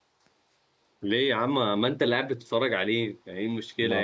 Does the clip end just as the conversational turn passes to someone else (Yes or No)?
Yes